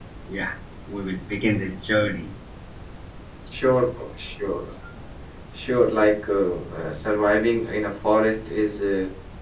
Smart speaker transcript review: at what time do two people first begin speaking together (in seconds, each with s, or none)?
none